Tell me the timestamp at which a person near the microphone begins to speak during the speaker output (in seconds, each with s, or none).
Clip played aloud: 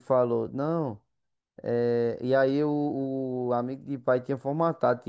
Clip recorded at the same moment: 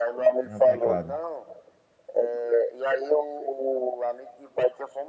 0.4 s